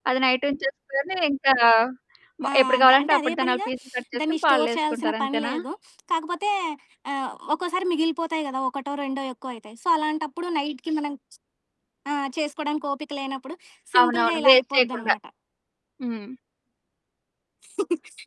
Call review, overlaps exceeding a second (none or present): present